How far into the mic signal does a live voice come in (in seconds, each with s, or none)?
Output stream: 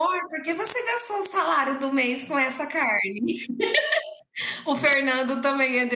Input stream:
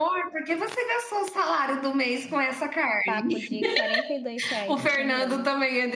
3.0 s